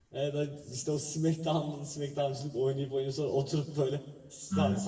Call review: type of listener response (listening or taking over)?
listening